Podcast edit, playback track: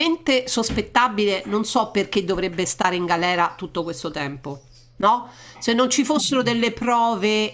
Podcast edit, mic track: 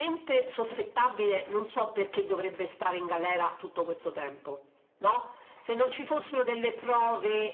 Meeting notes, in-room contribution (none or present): none